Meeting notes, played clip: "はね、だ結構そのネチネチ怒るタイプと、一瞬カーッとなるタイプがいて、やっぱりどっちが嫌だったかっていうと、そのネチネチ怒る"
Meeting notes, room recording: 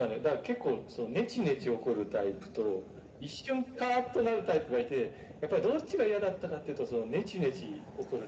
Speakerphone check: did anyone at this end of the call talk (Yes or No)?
No